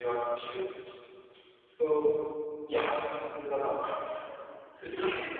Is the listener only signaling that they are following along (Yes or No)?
No